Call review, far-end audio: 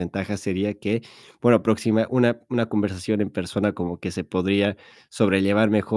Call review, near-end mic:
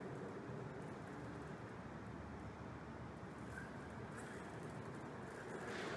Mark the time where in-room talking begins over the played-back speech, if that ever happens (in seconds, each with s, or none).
none